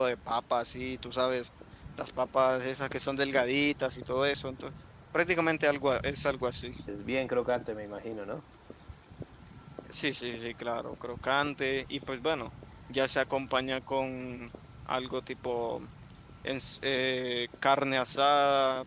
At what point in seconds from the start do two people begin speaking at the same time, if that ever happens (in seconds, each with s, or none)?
none